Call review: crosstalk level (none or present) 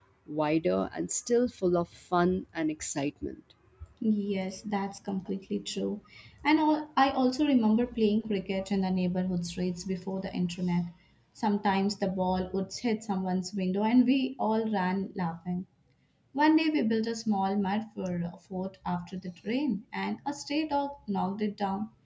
none